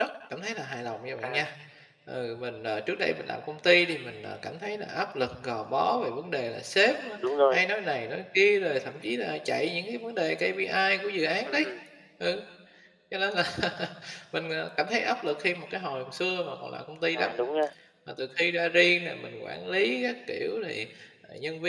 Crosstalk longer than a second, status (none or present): none